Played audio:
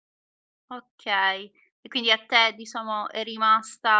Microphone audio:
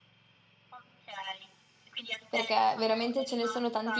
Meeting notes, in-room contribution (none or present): present